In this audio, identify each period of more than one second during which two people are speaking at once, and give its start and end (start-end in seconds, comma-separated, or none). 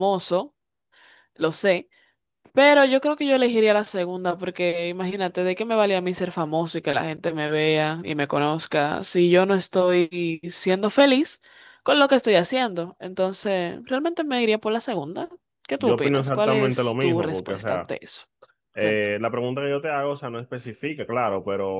15.8-17.8